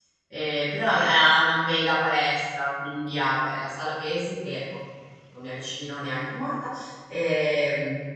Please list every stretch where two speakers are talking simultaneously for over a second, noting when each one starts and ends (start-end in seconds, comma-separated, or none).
none